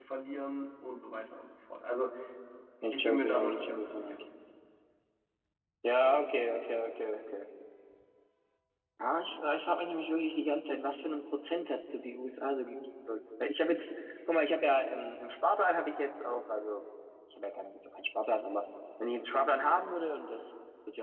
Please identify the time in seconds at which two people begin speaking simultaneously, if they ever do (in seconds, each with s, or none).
2.9 s